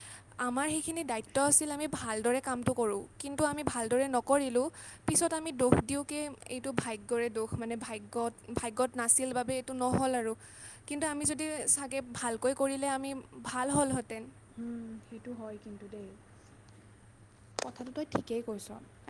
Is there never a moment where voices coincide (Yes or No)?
Yes